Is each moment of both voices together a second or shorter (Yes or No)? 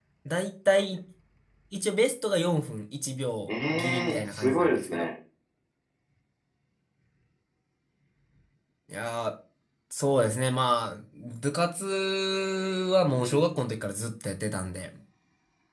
No